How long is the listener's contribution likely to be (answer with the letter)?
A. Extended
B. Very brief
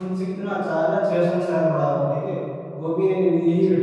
B